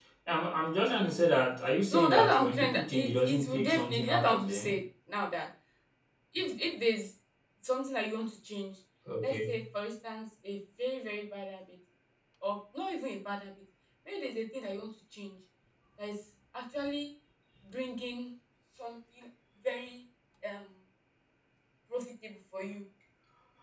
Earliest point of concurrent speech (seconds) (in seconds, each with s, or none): 1.9 s